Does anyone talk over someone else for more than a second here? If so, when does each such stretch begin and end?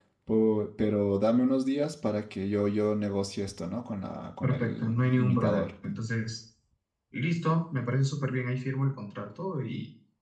4.4-5.7

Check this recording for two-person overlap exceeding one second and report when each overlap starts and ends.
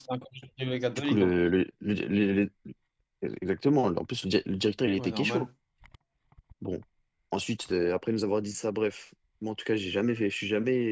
none

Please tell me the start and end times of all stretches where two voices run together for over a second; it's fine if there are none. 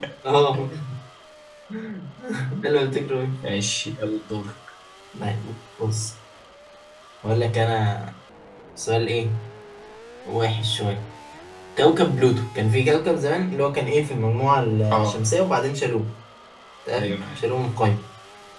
none

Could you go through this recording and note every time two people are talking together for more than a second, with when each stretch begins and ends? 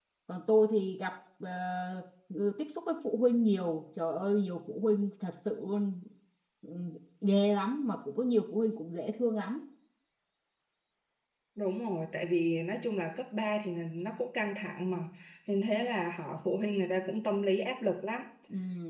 none

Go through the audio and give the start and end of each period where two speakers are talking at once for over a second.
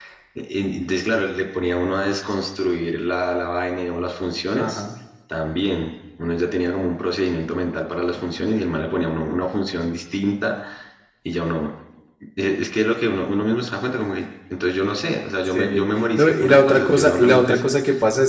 15.5-17.7

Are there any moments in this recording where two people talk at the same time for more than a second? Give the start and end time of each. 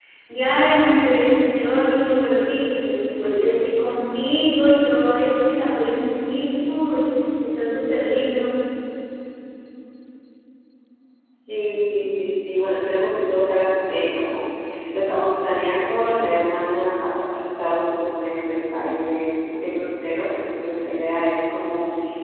none

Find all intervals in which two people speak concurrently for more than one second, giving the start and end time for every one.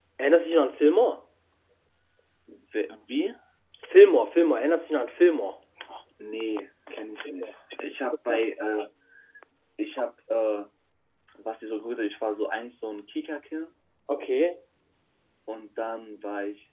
none

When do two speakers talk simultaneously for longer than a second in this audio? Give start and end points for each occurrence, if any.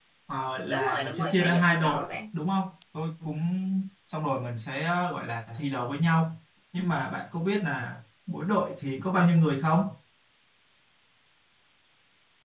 0.7-2.1

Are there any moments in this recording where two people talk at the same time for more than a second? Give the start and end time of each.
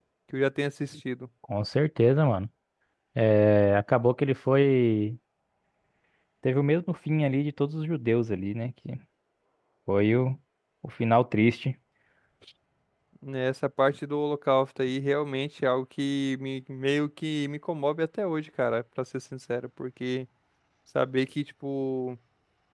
none

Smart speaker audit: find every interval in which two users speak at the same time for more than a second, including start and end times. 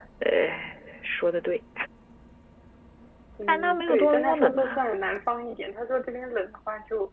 3.5-4.8

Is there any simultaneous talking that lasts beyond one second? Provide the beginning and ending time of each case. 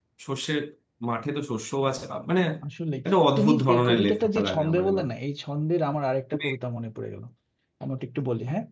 3.4-5.1

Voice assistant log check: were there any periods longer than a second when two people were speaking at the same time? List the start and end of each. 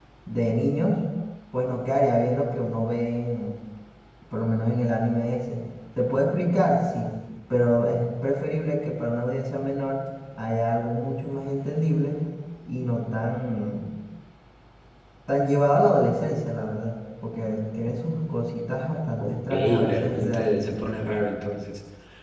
19.2-20.7

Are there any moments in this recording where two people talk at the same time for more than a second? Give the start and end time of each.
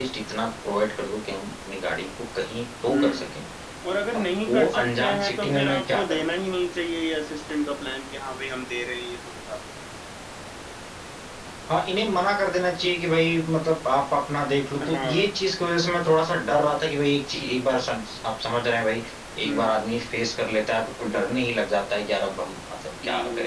4.1-6.3

